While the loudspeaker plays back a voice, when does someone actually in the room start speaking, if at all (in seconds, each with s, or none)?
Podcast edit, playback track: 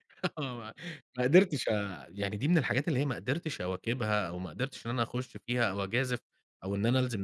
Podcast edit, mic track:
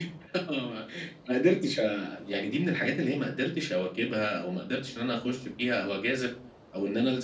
none